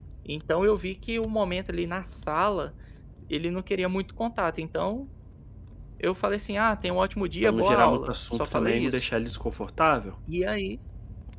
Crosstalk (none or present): present